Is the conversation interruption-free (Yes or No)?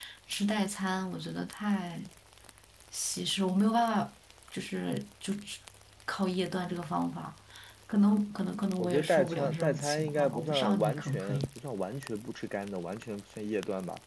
No